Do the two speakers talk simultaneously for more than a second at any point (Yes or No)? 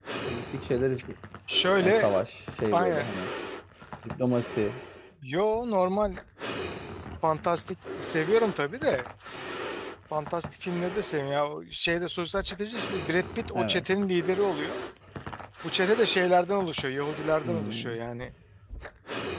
No